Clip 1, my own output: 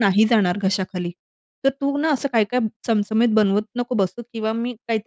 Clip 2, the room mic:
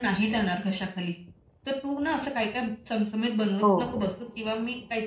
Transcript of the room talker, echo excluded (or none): हो.